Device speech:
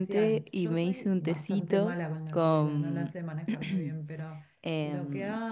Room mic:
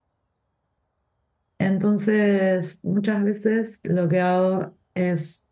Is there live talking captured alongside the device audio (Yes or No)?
Yes